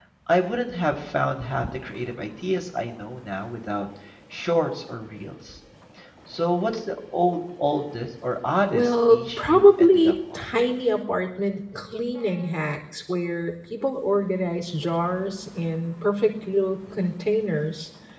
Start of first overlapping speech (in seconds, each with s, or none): 8.7 s